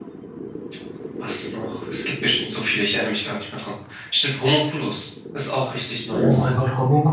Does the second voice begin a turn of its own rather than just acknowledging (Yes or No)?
Yes